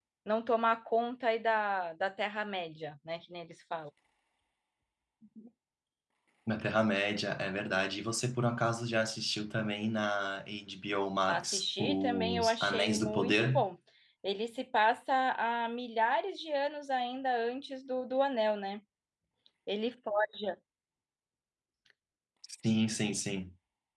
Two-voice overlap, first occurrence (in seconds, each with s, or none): 11.3 s